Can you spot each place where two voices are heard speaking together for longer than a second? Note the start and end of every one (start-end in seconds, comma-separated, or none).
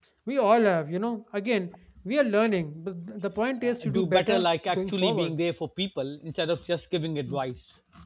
3.6-5.4